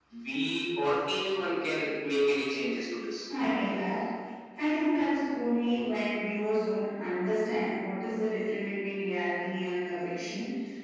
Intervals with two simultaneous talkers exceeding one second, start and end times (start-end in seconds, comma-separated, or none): none